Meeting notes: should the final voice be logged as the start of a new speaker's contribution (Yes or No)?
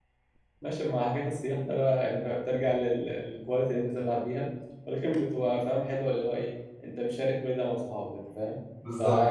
No